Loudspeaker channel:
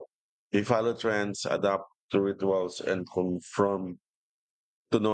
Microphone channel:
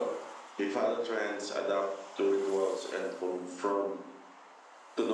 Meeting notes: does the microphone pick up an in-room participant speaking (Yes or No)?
No